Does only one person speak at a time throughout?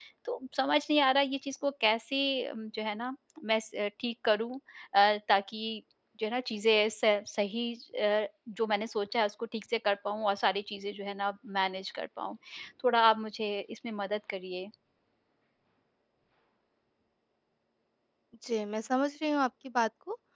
Yes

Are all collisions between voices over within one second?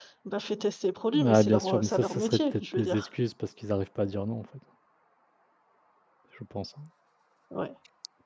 No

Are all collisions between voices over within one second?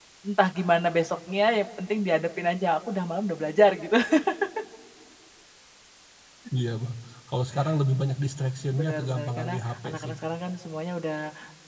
No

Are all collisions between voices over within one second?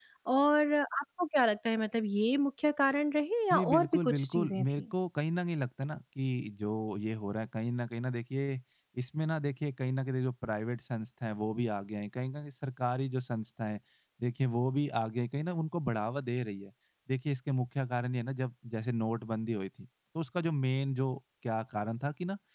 No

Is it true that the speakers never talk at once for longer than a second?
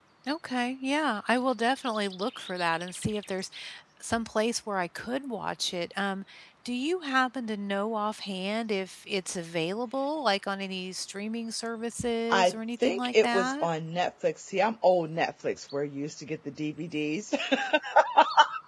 No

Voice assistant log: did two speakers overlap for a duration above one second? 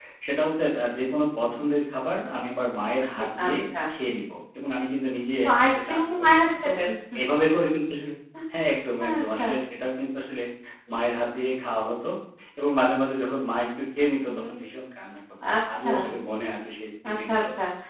Yes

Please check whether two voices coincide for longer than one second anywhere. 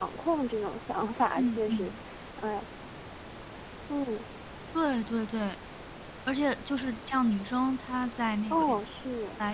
No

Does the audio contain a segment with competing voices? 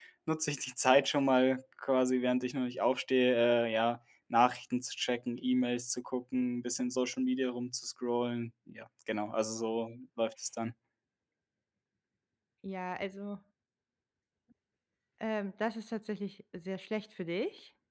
No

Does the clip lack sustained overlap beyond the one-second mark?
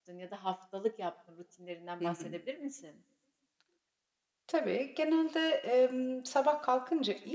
Yes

